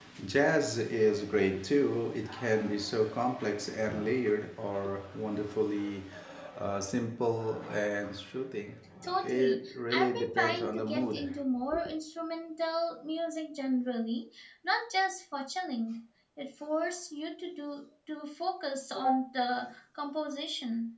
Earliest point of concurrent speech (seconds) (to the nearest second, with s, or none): 9 s